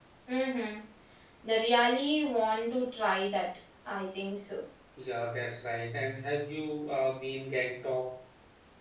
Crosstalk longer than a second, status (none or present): none